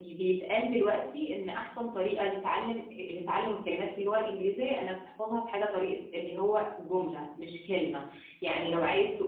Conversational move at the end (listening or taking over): listening